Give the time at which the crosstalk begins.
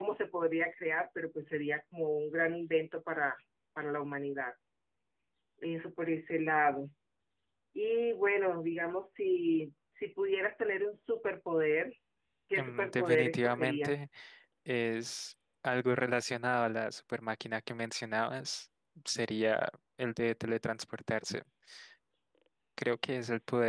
12.6 s

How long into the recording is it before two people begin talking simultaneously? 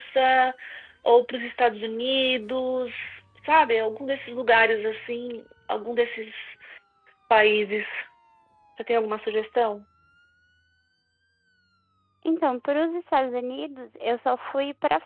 none

